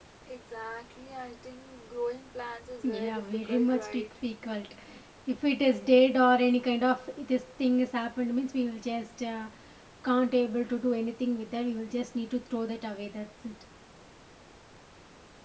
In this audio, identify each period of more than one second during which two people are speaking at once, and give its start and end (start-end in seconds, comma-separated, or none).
2.8-4.0